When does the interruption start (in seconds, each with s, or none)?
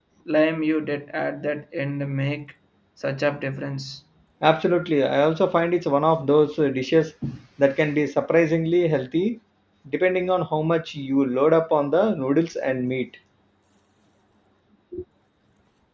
none